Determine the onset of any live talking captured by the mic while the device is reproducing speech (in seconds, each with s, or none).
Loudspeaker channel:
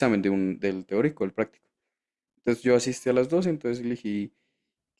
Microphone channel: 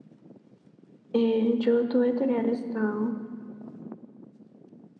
1.1 s